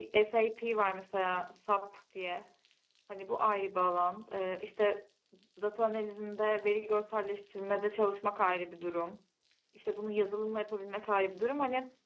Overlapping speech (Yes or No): No